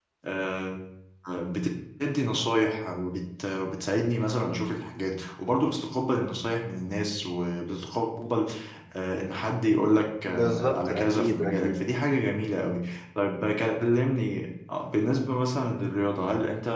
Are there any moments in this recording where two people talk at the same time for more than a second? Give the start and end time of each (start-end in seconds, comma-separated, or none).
10.2-11.8